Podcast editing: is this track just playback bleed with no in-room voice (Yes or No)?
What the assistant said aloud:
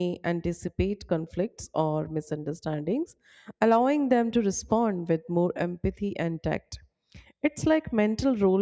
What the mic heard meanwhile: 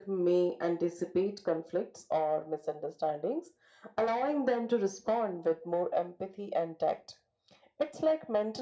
Yes